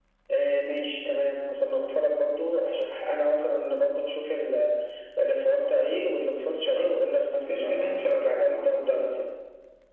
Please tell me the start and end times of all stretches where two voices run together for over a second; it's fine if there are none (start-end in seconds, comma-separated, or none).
6.8-9.2